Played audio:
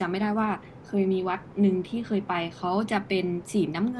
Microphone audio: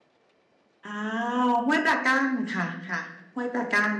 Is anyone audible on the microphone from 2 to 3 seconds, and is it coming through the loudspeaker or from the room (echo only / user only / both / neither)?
user only